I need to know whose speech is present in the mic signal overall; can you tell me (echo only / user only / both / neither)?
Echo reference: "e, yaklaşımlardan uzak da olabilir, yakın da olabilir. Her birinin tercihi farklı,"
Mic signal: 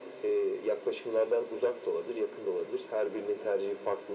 echo only